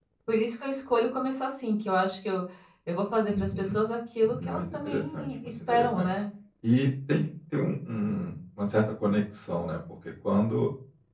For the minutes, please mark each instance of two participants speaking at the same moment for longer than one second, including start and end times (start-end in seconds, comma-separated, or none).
4.2-6.1